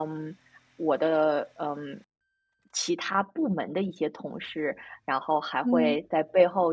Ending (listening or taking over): listening